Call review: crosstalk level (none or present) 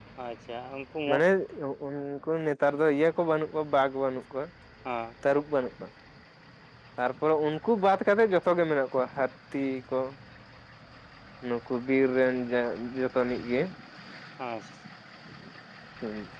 none